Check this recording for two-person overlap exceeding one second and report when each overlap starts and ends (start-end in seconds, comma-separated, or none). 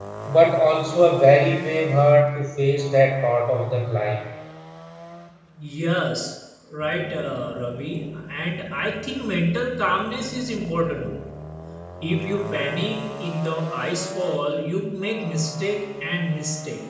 none